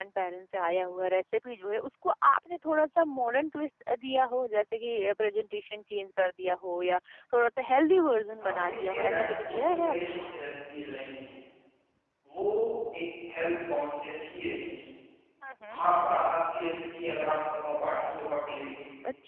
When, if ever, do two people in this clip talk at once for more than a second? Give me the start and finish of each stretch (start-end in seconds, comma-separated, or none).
8.4-10.0